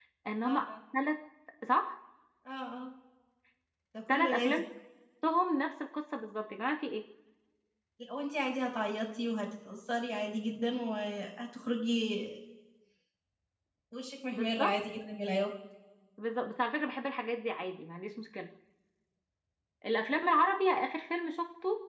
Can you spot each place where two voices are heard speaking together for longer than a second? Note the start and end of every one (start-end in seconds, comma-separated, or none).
none